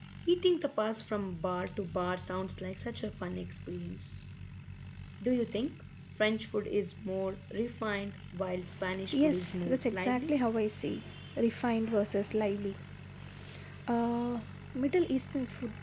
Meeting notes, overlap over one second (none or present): present